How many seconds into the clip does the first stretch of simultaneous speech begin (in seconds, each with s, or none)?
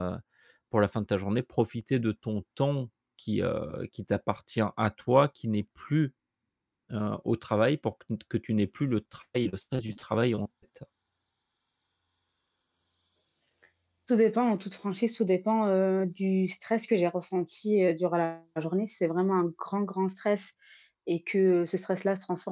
none